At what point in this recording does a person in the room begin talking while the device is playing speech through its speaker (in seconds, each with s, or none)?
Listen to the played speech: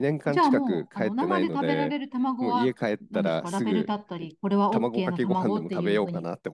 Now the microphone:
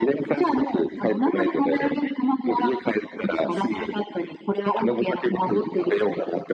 none